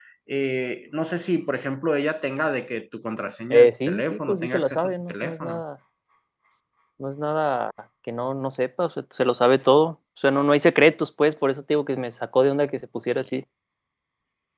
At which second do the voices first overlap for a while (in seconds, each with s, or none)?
3.5 s